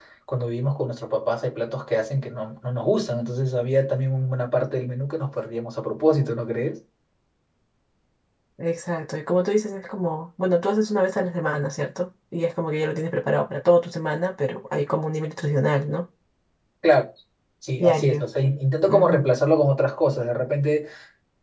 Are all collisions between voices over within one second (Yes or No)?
Yes